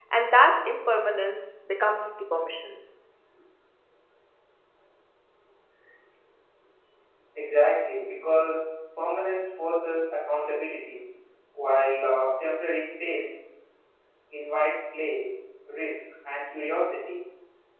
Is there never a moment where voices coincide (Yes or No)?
Yes